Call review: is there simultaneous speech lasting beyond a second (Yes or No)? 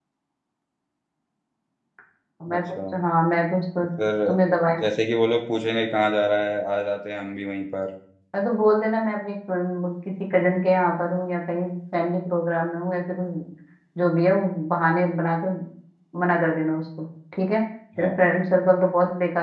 No